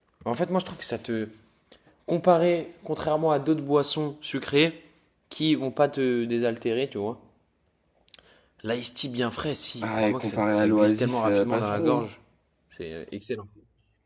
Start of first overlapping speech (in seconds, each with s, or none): 9.8 s